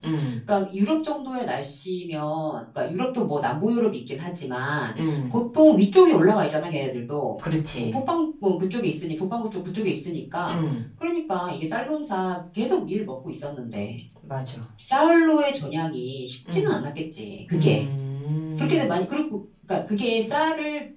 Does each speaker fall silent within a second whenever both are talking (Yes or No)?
Yes